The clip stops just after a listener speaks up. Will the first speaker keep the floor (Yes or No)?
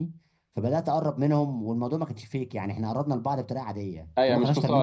No